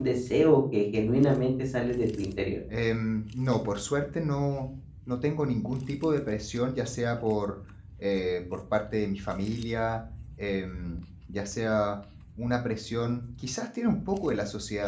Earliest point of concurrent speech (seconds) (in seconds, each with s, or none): none